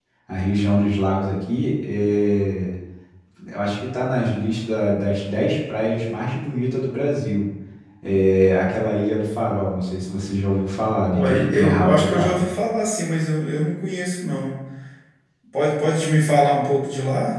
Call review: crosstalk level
present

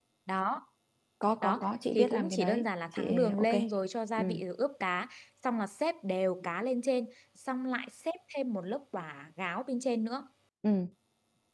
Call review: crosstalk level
present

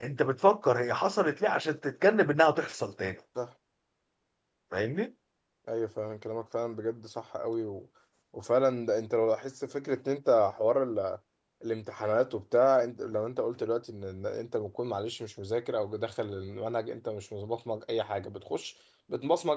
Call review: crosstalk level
none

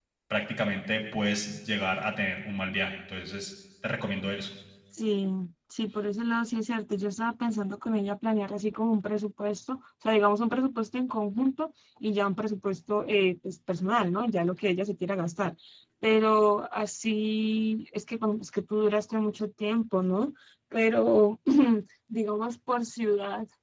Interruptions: none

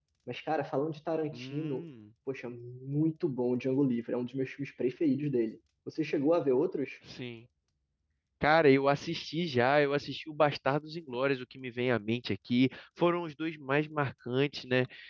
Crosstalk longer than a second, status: none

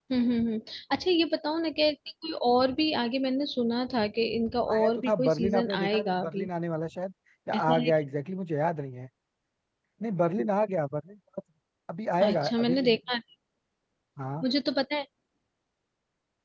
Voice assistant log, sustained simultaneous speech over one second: present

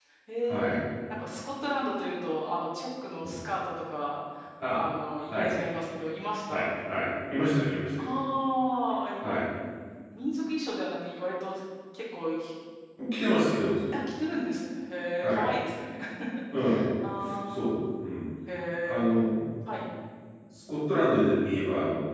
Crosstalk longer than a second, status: none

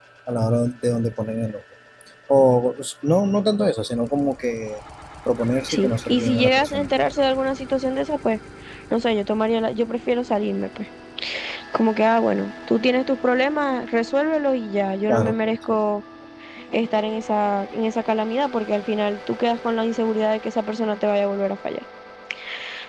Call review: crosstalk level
present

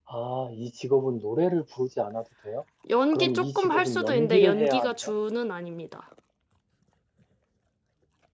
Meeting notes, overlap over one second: present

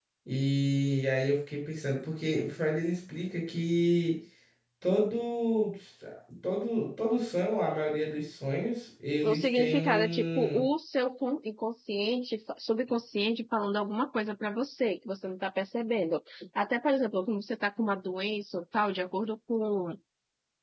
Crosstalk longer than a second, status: present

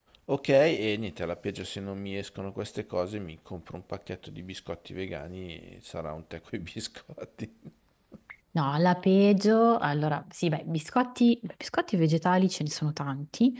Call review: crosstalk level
none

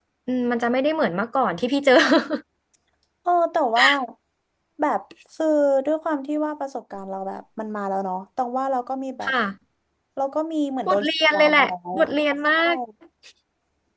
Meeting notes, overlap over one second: present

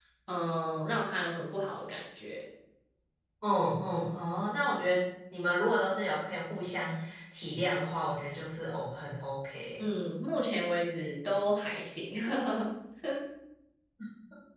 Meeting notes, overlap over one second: none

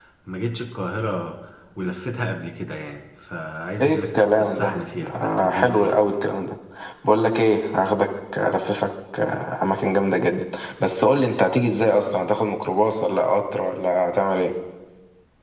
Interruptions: present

